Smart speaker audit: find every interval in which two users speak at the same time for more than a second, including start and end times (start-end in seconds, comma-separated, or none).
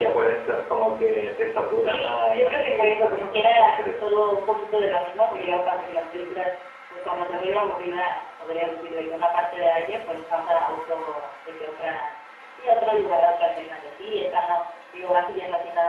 1.9-3.8